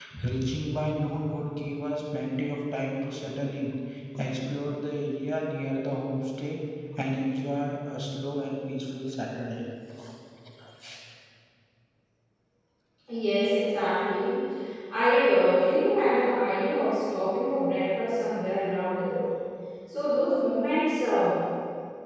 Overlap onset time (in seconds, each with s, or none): none